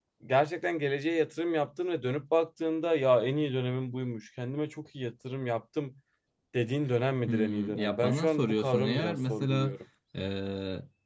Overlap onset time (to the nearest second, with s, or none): 7 s